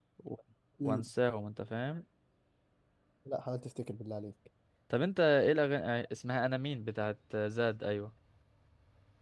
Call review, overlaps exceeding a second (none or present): none